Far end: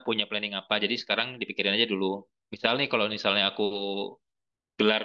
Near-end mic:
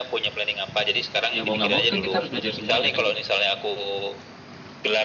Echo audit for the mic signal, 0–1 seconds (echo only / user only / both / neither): echo only